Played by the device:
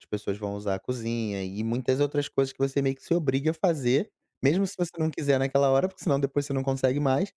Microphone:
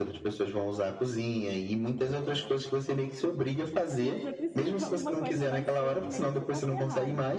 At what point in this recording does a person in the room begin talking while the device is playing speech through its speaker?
3.9 s

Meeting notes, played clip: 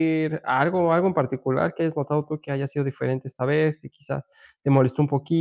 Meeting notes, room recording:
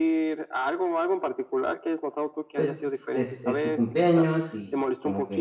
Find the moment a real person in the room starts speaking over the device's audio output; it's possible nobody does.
2.5 s

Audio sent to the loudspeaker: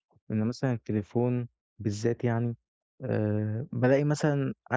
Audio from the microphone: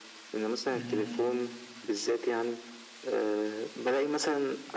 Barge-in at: 0.7 s

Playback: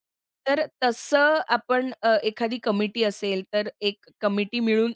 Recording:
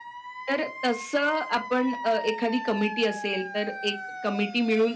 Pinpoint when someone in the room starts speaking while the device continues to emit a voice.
none

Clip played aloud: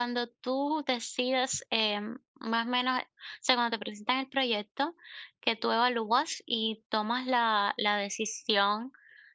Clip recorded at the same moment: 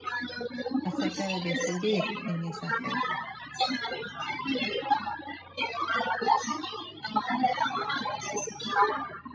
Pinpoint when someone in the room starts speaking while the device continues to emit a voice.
0.8 s

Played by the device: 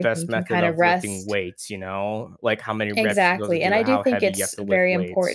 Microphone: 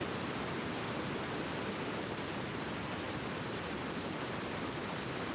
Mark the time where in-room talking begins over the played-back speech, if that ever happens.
none

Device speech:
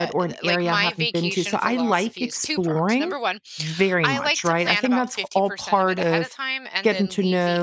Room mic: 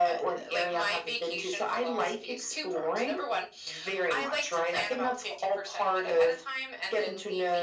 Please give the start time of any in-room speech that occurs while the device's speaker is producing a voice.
none

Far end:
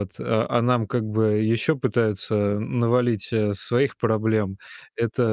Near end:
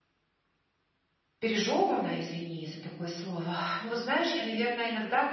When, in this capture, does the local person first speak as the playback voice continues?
1.4 s

